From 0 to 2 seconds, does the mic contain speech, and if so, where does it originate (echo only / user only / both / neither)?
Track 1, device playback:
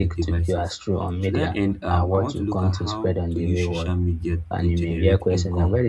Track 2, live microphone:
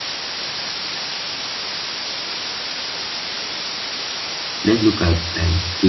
neither